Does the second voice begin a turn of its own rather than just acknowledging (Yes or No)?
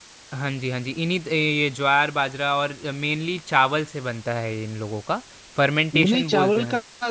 Yes